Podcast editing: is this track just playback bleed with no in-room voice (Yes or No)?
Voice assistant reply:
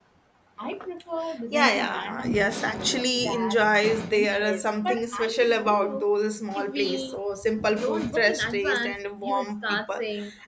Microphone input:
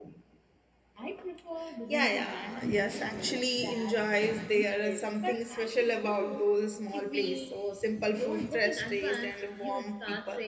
Yes